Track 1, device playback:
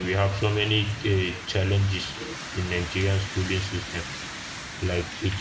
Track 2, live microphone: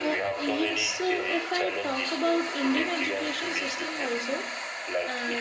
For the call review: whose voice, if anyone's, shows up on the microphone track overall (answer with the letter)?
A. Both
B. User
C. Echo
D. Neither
A